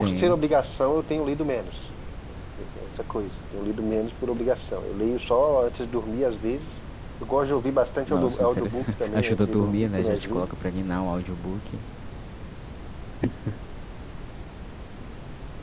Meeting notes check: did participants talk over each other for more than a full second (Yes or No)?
Yes